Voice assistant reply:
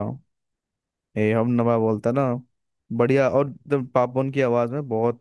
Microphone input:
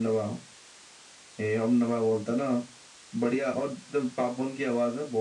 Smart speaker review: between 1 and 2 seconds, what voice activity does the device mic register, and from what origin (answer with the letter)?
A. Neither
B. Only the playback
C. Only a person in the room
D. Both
B